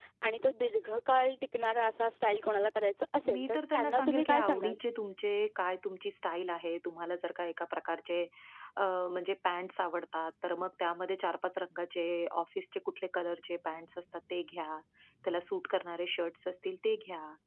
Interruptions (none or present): present